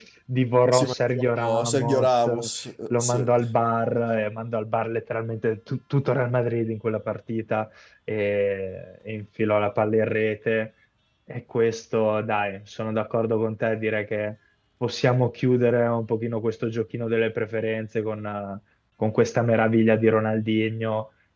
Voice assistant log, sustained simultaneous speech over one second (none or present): present